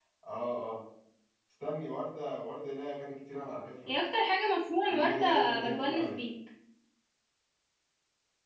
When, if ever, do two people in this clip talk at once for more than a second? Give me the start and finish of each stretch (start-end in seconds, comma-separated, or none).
4.9-6.2